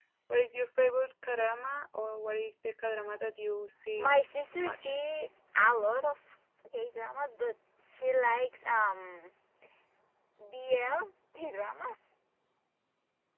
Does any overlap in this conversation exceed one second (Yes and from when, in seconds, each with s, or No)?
No